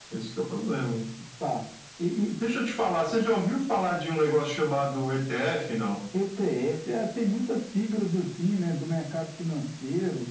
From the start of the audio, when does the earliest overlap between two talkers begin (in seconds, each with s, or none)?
none